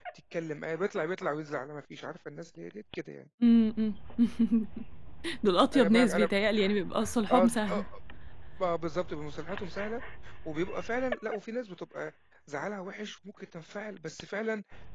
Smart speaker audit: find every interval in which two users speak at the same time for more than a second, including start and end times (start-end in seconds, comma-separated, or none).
none